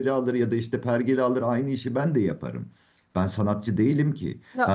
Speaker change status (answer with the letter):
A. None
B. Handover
A